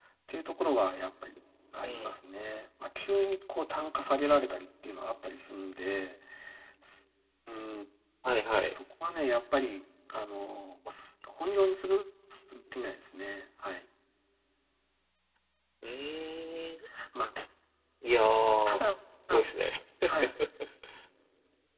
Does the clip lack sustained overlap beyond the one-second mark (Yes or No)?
Yes